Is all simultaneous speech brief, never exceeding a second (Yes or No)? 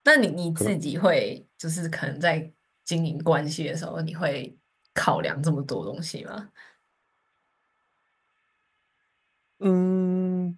Yes